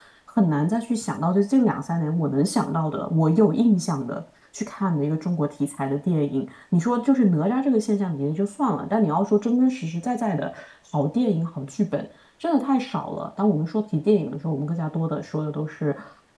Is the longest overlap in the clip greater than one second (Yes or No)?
No